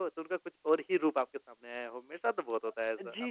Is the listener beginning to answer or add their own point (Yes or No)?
Yes